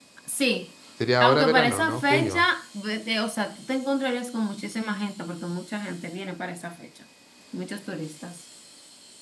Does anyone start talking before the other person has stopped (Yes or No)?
Yes